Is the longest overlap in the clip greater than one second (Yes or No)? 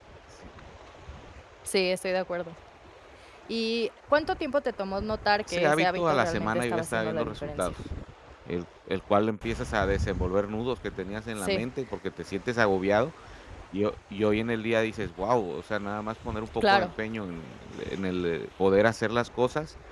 Yes